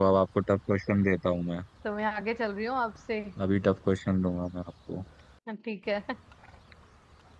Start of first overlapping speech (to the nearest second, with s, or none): none